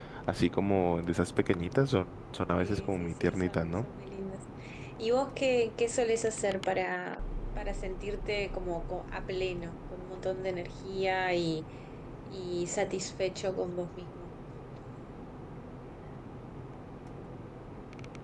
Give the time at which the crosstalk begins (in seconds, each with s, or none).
2.5 s